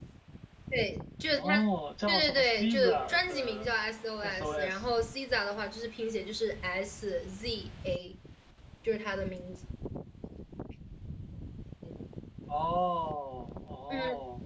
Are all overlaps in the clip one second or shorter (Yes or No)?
No